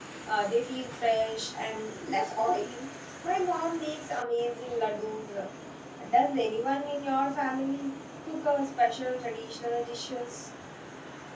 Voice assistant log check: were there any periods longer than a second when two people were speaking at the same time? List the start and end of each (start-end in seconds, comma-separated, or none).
none